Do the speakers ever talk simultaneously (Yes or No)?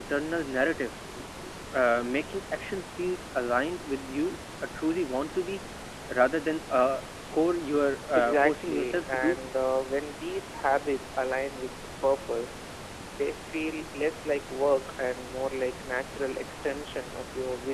Yes